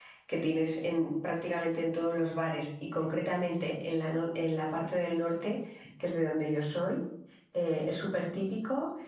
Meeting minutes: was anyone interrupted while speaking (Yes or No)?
No